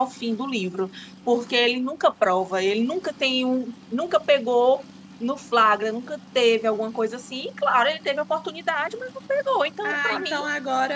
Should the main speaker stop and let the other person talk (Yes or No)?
Yes